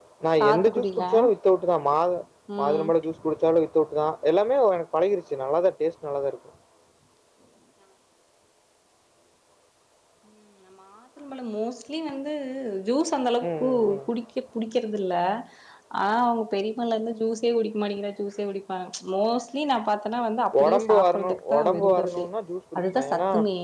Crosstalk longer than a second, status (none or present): present